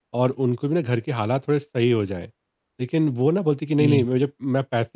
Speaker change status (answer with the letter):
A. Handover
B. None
B